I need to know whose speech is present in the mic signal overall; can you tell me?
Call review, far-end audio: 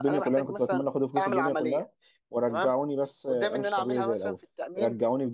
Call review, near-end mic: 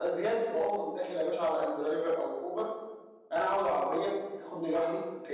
user only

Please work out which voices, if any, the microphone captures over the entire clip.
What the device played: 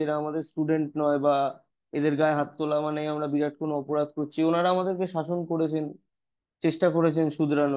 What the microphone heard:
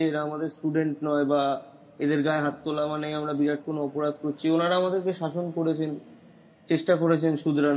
echo only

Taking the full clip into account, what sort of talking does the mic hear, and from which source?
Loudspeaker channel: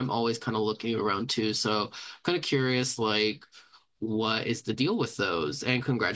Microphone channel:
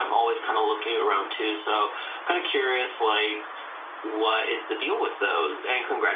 echo only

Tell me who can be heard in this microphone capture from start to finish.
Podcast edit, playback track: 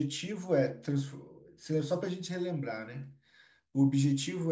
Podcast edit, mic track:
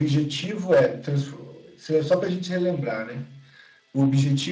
echo only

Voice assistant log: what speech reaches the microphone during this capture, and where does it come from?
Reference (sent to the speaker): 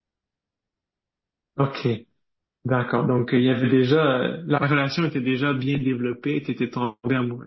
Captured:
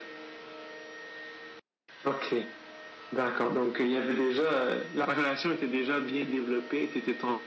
echo only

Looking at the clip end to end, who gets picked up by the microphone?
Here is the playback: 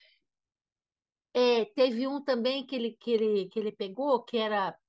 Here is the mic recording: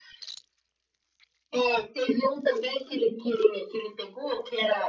echo only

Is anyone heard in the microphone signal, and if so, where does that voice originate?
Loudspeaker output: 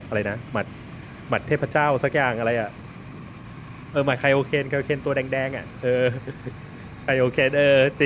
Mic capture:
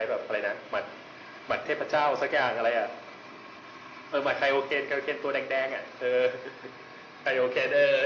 echo only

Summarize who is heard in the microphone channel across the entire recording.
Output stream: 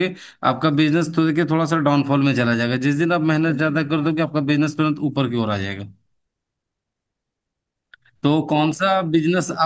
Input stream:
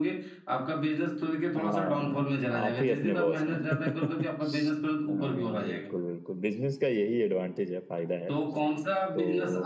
both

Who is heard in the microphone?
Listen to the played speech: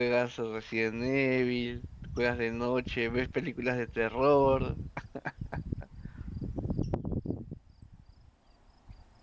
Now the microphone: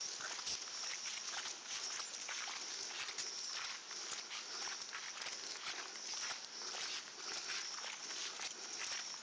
neither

